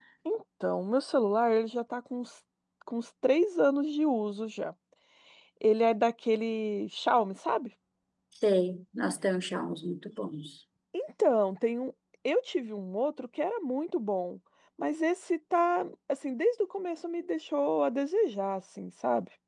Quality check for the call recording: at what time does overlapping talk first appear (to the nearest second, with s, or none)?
none